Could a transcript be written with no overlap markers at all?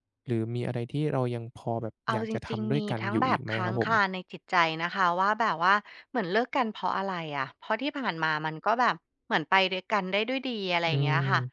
No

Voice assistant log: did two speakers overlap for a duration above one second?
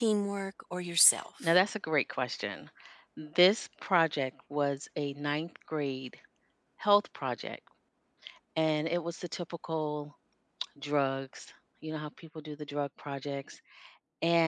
No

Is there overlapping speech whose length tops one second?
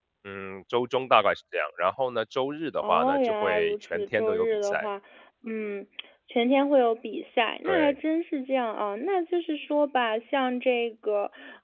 Yes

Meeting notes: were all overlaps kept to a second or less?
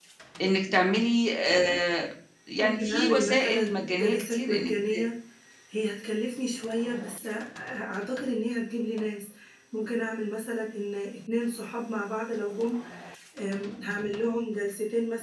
No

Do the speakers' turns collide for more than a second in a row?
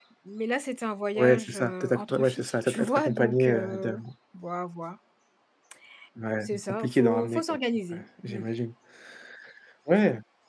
Yes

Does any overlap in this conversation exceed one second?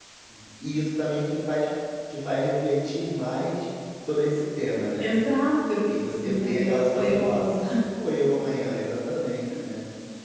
Yes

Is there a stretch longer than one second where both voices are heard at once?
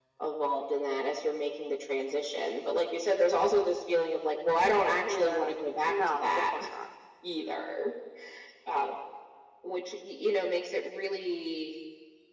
Yes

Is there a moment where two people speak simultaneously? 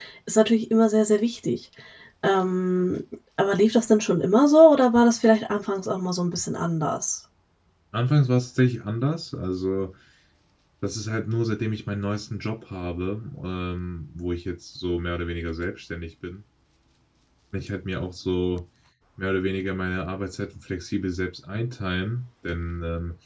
No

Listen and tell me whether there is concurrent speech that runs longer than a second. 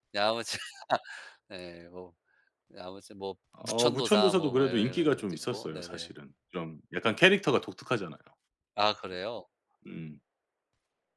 Yes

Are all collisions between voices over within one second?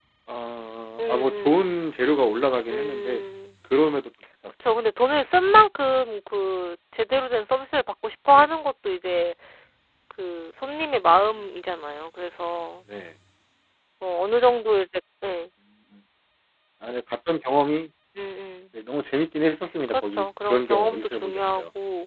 No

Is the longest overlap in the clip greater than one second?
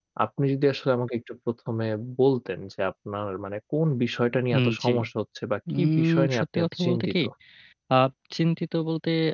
Yes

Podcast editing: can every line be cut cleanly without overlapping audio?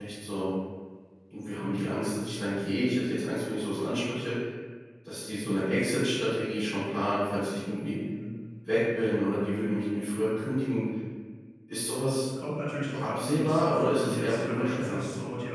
No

